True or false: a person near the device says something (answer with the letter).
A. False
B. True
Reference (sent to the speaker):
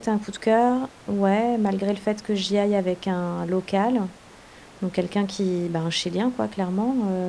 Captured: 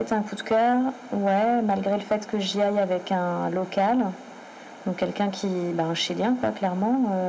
A